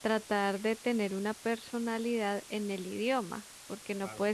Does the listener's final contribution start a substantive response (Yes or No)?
No